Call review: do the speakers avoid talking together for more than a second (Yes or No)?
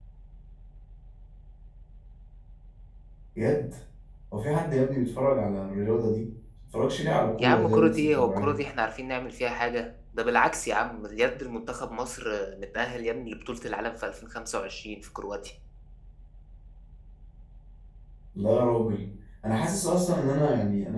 No